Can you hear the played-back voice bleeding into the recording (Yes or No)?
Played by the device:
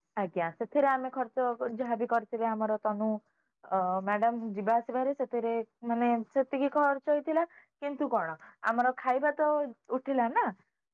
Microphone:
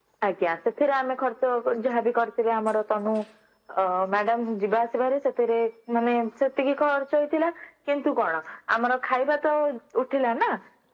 Yes